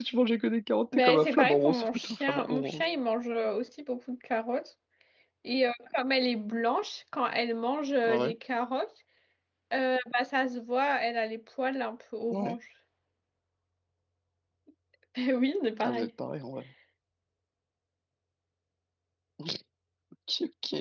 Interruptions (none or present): present